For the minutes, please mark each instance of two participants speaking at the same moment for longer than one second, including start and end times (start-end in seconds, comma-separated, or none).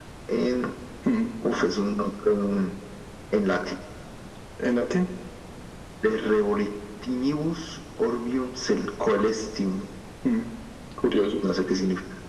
none